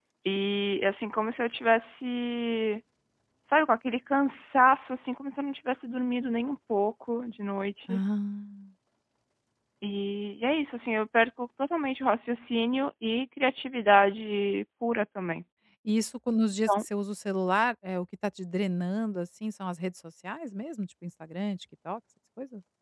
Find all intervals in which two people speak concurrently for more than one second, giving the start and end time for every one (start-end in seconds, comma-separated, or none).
none